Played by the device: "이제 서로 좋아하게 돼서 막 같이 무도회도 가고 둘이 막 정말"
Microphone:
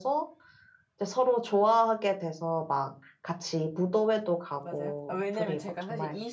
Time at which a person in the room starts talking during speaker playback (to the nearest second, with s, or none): 5 s